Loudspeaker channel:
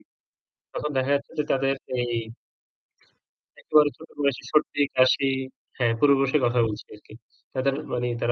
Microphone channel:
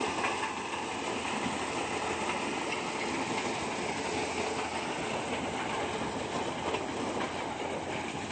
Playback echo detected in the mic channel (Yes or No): No